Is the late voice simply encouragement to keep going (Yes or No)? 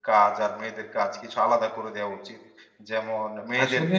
Yes